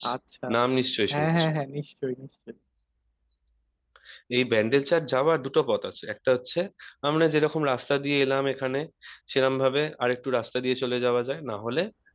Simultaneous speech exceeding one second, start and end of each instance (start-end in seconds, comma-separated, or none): none